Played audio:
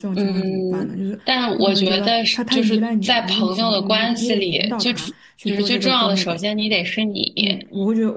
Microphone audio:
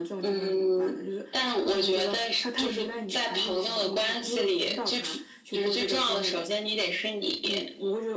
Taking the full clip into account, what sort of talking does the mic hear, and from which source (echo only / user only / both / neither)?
echo only